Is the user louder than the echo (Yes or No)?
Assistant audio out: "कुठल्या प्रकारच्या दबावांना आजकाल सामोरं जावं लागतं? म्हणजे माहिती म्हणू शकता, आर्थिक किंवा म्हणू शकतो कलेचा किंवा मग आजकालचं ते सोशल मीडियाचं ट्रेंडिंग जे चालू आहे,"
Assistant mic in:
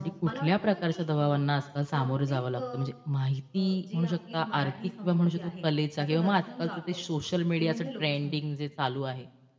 No